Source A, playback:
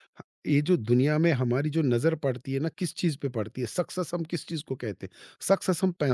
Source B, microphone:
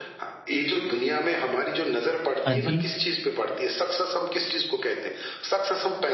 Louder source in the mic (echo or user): user